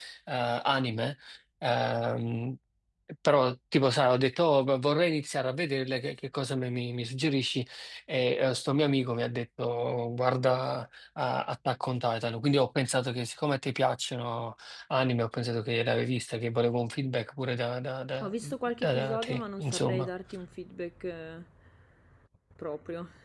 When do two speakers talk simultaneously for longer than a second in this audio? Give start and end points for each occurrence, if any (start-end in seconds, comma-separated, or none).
18.8-20.1